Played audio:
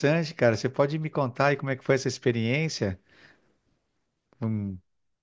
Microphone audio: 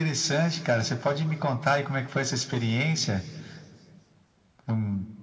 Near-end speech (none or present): none